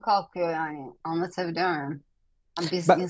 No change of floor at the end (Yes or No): Yes